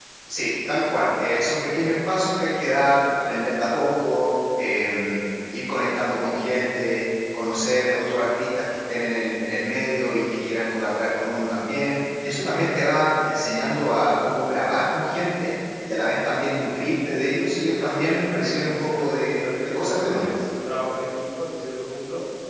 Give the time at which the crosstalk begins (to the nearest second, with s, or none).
18 s